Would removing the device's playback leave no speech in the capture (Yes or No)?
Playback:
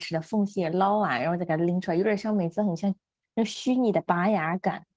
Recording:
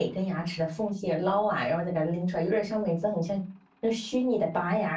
Yes